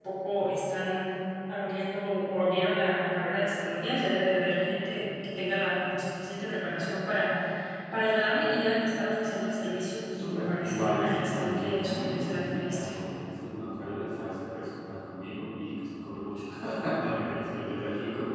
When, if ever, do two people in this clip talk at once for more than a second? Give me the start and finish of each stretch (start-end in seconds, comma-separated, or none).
10.0-12.9